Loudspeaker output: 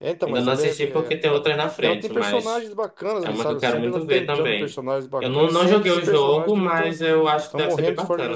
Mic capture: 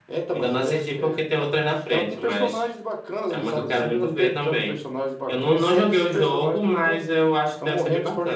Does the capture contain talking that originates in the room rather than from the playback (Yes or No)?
No